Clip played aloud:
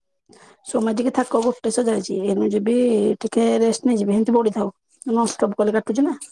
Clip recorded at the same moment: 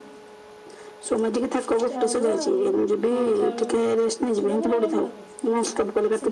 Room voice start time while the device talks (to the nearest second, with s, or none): 2 s